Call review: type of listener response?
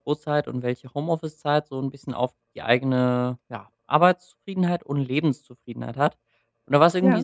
listening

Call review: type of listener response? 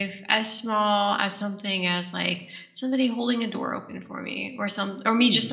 listening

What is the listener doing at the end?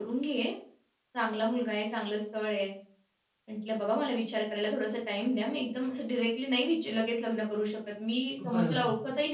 listening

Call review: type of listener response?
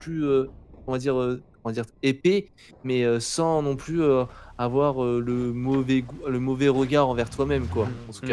taking over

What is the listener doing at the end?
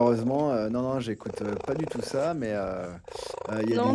taking over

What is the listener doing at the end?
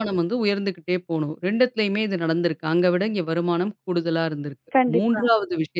listening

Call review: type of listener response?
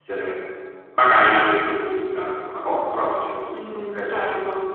taking over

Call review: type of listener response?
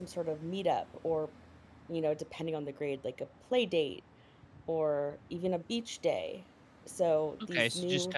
taking over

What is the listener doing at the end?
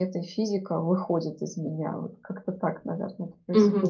taking over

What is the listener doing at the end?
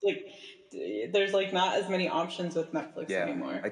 taking over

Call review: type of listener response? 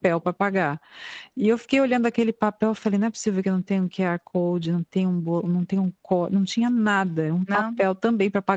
listening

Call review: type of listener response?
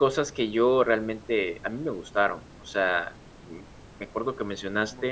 taking over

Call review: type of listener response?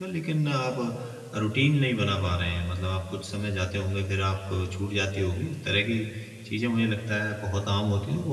listening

